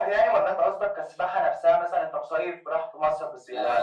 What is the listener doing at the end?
taking over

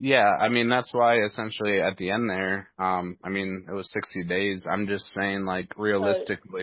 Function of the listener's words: taking over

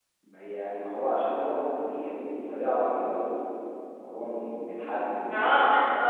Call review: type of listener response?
taking over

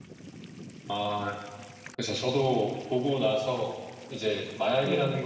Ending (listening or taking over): listening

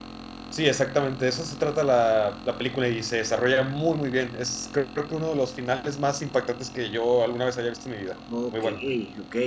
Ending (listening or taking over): taking over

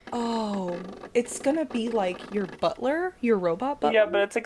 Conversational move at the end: taking over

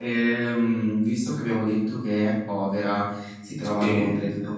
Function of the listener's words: listening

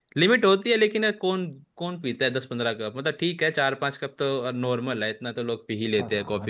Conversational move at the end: taking over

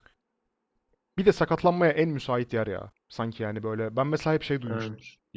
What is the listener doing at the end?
listening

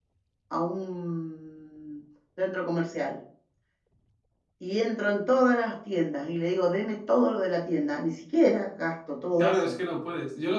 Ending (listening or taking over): taking over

